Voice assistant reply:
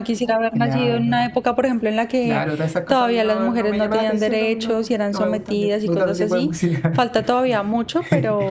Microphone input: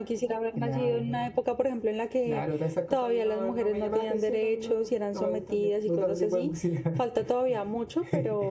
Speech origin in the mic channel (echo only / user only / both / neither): echo only